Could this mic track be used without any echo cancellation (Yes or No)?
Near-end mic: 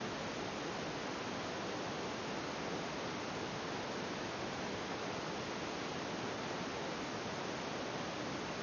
Yes